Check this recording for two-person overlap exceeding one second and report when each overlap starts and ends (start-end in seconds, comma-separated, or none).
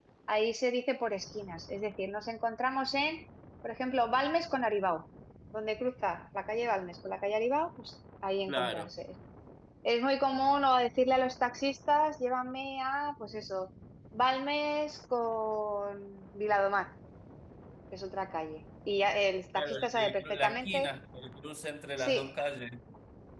19.5-20.9